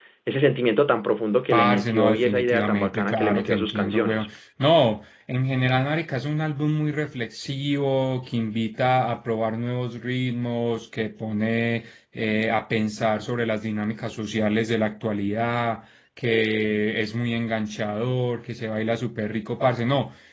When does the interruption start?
1.5 s

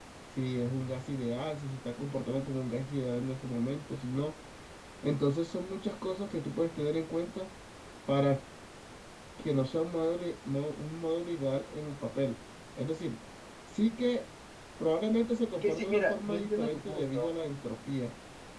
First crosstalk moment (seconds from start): 15.5 s

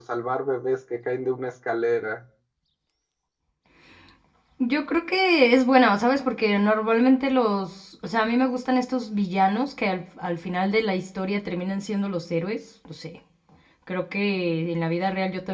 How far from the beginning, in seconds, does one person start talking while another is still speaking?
none

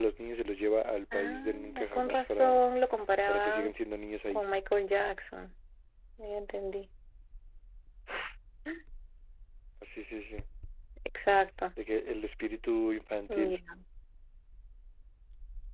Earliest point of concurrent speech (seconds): 1.1 s

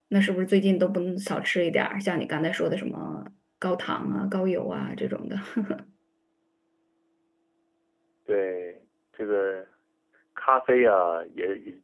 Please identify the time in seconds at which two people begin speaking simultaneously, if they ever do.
none

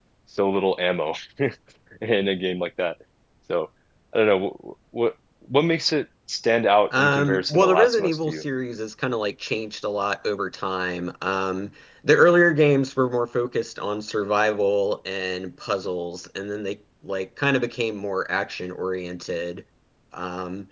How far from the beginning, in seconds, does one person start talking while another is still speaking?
6.9 s

